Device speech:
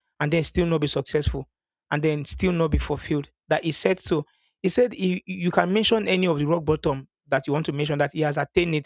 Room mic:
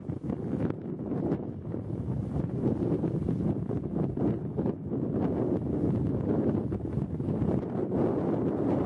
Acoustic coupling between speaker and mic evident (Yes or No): No